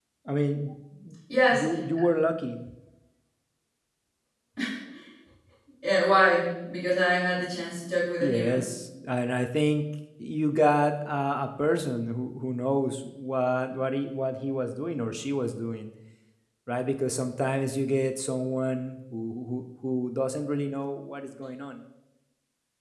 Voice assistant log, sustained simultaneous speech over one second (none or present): none